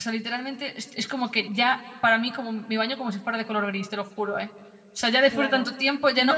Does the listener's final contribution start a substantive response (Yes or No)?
Yes